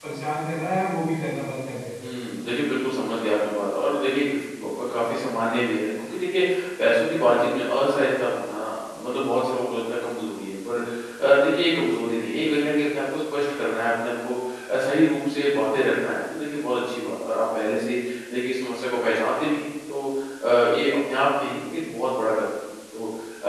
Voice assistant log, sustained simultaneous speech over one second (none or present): none